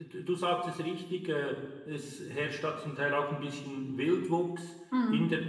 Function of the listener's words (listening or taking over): listening